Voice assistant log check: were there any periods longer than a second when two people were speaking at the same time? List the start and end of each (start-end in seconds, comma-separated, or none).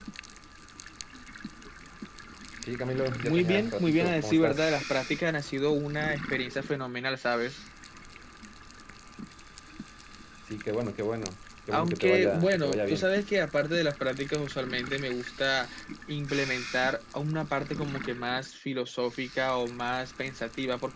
3.2-4.6, 11.7-13.1